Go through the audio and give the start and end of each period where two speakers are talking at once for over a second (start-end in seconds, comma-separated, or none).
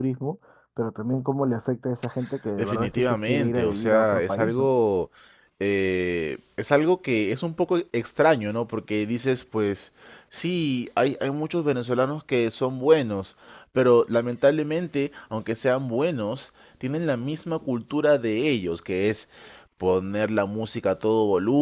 2.6-4.7